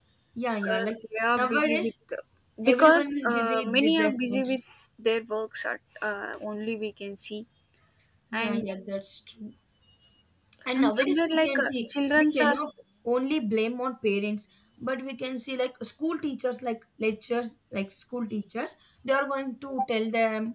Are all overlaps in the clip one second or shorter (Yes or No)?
No